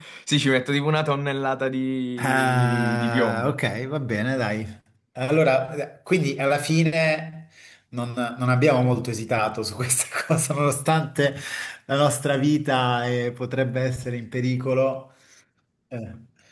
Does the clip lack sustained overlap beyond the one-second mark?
No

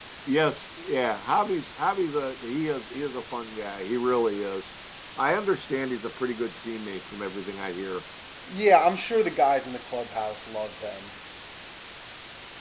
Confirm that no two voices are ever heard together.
Yes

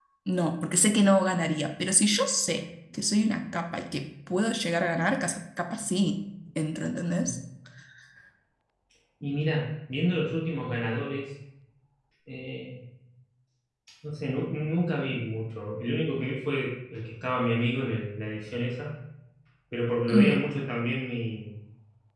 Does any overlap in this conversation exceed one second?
No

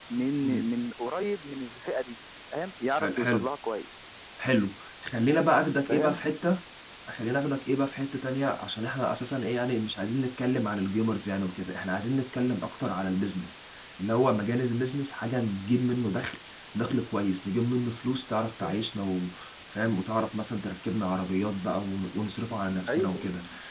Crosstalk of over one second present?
No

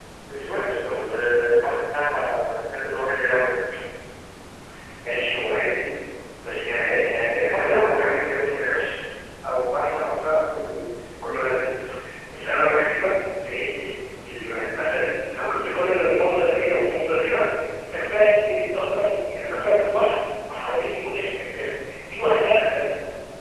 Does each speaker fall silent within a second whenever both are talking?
No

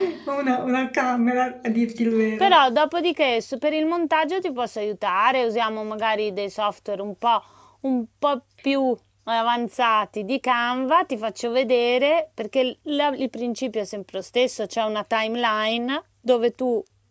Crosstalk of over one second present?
No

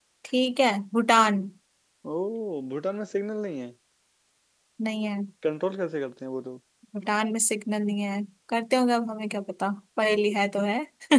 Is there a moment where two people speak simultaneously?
No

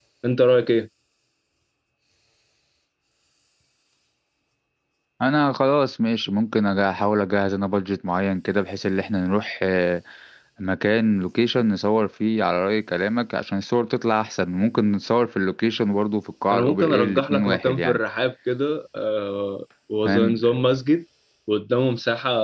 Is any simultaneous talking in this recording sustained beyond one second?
Yes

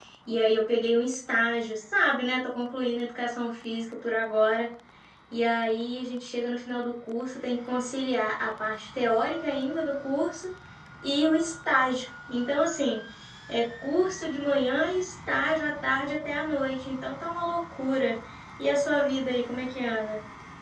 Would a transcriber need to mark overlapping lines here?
No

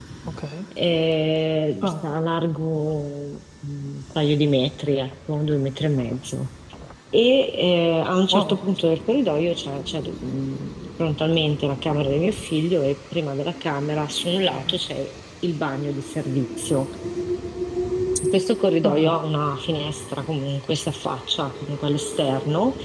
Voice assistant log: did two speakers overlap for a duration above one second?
No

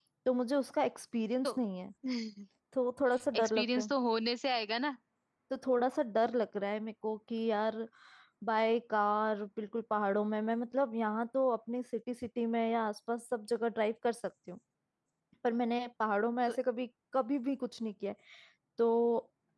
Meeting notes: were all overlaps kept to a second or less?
Yes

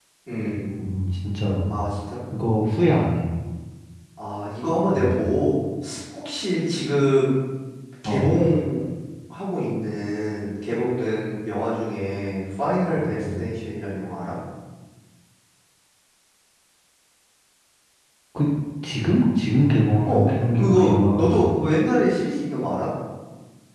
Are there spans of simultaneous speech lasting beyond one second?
Yes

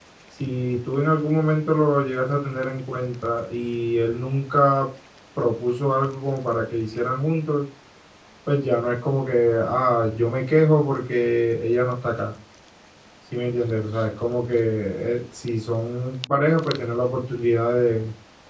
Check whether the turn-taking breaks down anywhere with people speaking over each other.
No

